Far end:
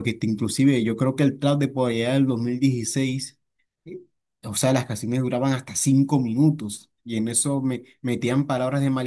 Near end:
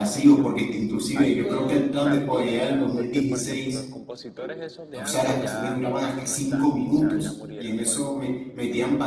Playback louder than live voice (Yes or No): Yes